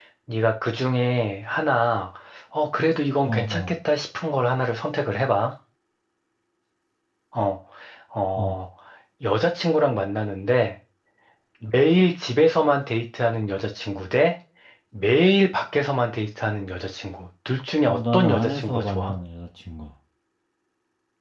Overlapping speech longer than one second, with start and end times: 17.8-19.1

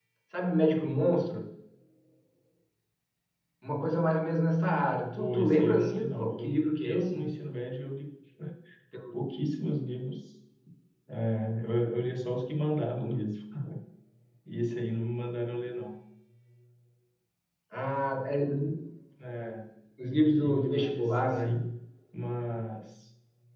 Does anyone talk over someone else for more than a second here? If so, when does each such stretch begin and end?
5.2-7.3, 20.3-21.6

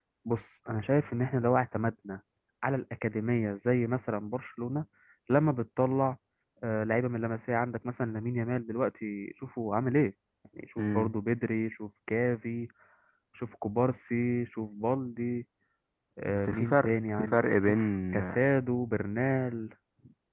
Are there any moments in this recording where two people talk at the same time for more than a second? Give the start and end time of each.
16.3-18.2

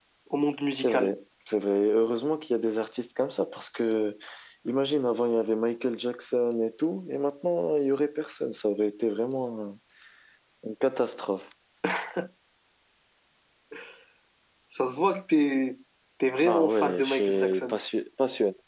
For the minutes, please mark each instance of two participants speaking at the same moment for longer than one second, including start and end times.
16.4-17.8

